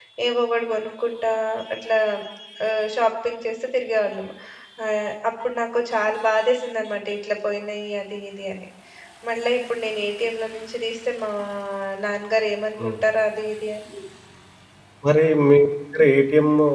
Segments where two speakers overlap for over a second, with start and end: none

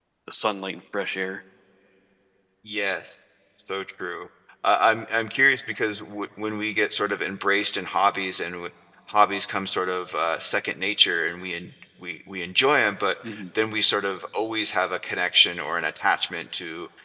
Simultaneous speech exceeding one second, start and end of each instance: none

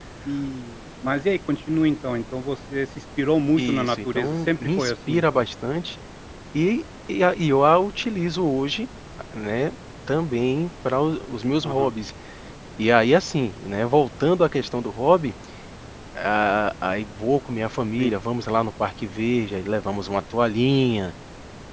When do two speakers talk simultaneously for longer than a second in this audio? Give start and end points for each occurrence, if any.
3.6-5.4

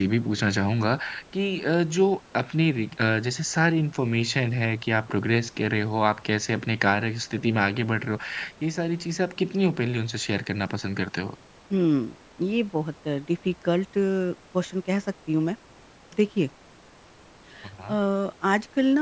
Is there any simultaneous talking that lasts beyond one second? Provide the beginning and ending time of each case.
none

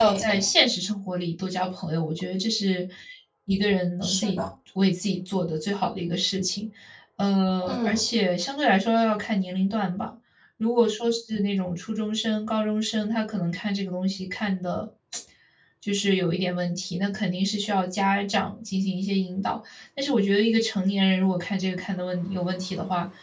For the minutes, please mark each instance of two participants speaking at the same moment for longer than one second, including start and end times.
none

